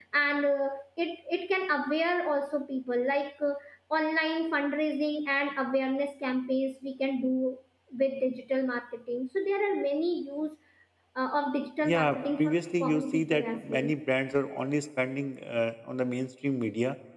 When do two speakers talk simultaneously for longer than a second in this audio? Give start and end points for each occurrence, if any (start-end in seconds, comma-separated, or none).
11.8-13.9